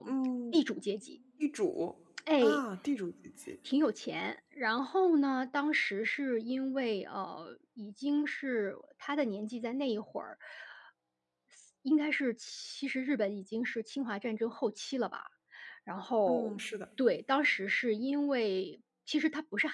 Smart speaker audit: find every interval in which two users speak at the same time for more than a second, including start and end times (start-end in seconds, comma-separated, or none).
none